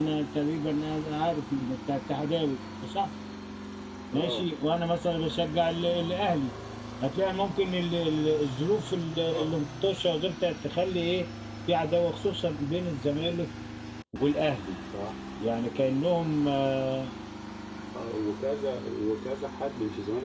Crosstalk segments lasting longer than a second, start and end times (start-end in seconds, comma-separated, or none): none